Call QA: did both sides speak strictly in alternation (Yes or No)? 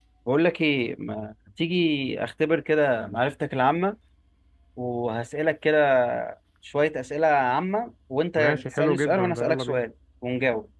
No